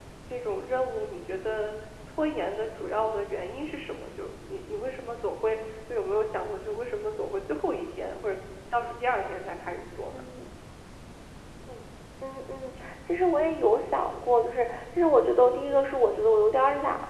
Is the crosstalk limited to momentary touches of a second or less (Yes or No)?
Yes